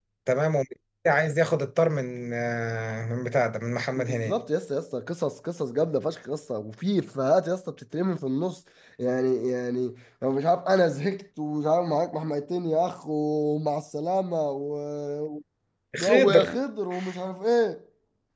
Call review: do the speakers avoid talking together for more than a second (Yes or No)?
Yes